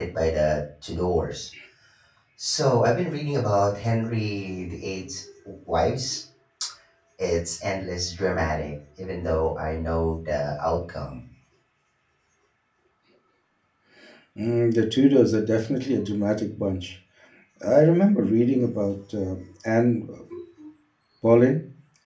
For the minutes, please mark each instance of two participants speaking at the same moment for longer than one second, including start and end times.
none

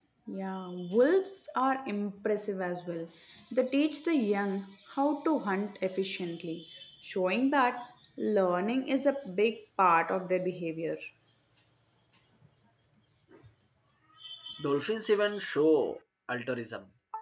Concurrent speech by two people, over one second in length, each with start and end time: none

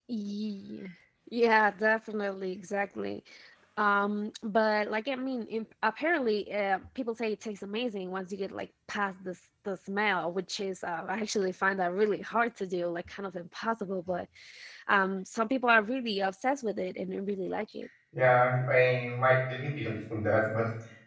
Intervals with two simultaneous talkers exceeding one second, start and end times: none

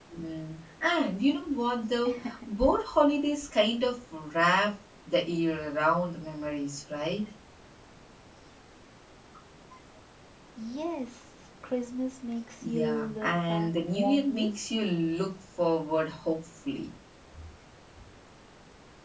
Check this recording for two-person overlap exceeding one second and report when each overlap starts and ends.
12.6-14.5

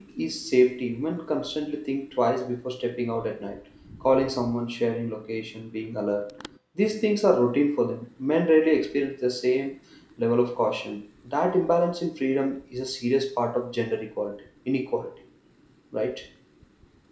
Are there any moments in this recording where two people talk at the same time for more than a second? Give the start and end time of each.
none

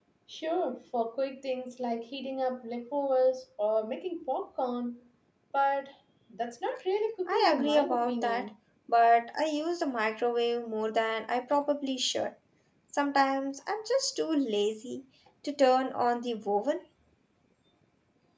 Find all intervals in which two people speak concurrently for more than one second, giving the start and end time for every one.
7.3-8.5

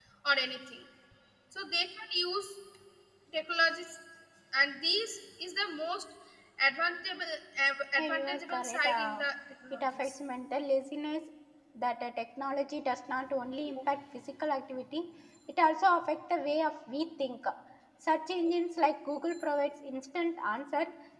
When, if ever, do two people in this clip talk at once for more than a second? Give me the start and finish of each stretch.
8.0-9.2

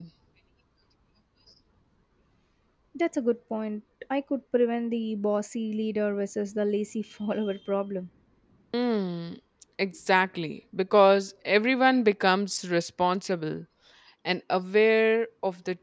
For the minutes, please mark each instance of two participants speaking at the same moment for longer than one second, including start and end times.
none

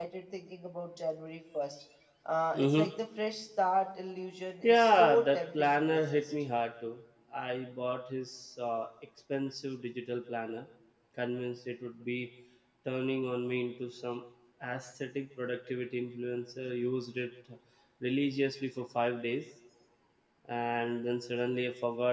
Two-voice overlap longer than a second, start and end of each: 4.7-6.3

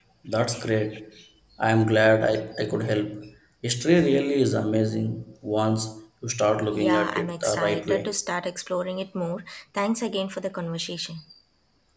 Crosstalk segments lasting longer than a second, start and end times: 6.8-8.2

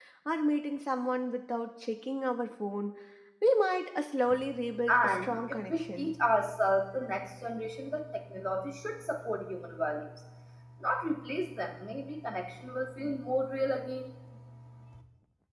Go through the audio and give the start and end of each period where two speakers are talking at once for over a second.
4.9-6.1

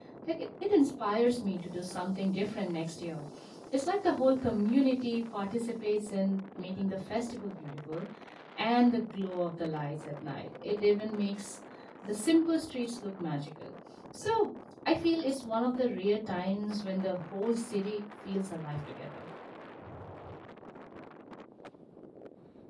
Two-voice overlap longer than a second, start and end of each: none

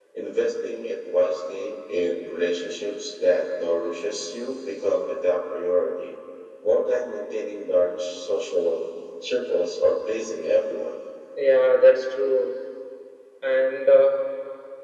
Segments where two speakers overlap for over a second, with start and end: none

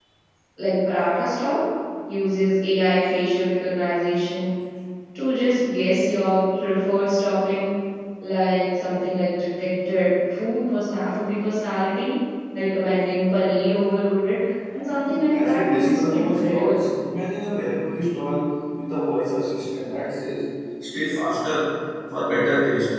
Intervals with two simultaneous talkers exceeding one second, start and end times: 15.3-16.8

